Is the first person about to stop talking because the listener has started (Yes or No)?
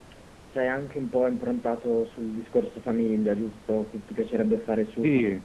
Yes